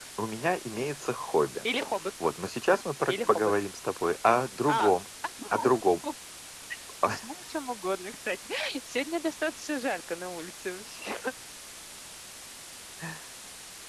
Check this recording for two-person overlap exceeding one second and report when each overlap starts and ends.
none

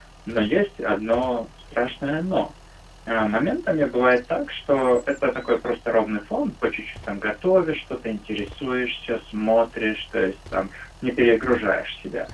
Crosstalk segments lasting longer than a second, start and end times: none

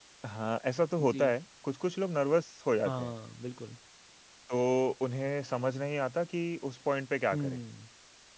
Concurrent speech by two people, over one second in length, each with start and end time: none

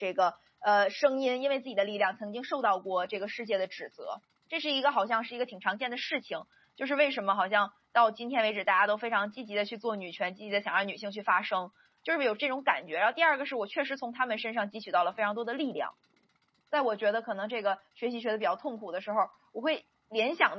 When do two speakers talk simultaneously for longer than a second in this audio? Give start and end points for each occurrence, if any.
none

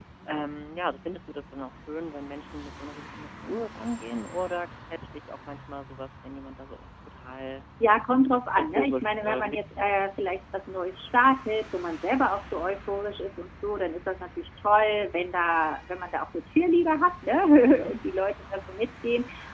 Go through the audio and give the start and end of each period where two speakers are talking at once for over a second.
8.6-10.0

